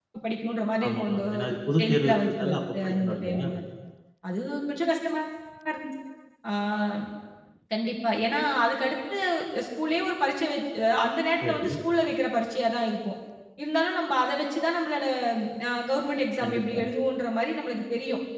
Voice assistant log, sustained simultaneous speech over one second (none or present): present